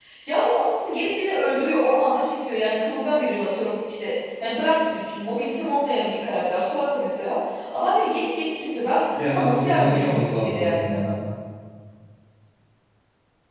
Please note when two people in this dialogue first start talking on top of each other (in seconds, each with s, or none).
9.2 s